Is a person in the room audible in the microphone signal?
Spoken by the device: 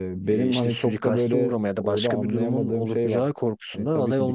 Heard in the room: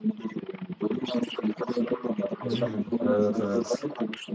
Yes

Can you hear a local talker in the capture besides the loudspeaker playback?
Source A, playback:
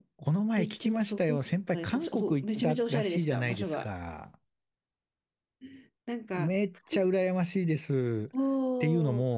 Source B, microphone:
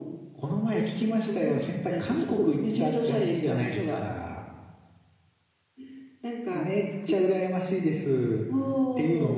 No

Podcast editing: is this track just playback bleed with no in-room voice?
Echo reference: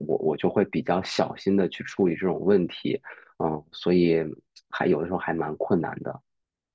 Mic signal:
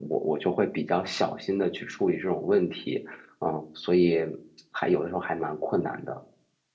Yes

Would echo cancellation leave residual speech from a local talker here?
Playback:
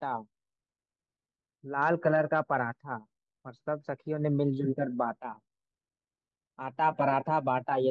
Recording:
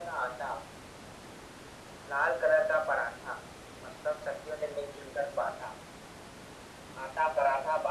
No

